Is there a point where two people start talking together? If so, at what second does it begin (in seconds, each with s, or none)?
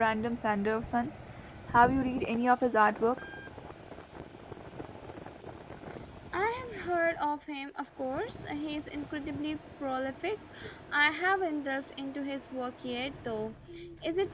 none